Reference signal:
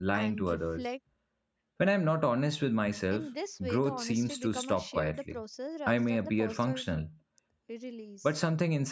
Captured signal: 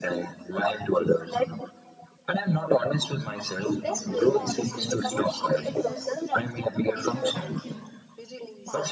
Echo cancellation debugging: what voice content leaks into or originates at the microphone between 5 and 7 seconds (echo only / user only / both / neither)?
both